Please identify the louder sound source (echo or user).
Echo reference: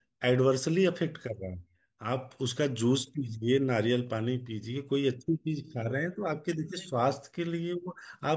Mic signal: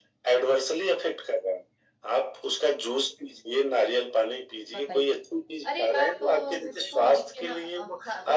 echo